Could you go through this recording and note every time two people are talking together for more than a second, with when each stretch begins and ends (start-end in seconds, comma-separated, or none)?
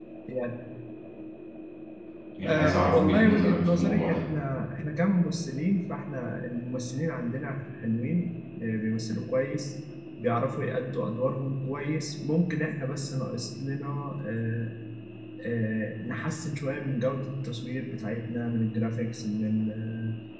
2.5-4.2